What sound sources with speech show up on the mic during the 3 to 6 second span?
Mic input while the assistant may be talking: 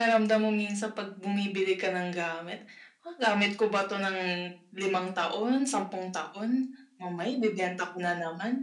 echo only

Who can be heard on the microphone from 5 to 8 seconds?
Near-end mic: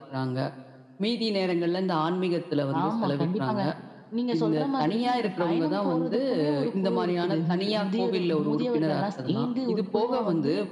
echo only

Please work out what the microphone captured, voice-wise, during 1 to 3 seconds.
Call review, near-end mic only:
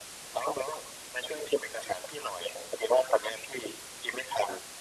echo only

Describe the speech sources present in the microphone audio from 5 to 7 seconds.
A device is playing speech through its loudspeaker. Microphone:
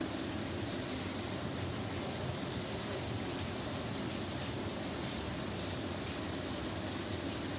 neither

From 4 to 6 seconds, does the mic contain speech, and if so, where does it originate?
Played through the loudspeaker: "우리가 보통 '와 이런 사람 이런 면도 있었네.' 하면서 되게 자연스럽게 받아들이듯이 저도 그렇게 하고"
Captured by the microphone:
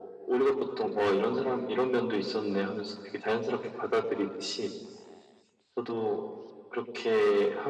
echo only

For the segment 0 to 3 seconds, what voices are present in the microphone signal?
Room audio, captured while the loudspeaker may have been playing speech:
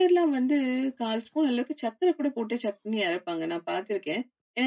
echo only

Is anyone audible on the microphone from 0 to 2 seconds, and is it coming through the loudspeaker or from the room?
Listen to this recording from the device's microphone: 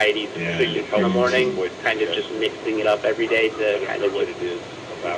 both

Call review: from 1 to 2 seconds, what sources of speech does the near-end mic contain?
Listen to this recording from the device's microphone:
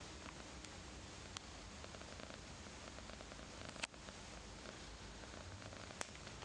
neither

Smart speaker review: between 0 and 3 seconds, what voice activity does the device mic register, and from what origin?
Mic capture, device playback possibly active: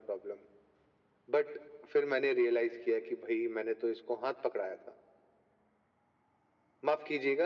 echo only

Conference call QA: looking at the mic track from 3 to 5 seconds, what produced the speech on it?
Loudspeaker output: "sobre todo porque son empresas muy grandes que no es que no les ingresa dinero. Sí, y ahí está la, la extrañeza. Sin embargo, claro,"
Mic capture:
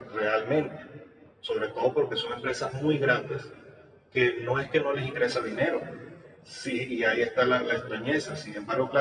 echo only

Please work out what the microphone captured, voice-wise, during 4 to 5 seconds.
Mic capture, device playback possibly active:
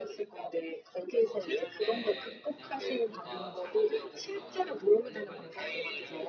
both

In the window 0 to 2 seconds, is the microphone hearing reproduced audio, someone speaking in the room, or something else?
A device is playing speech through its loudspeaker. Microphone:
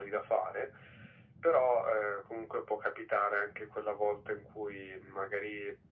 echo only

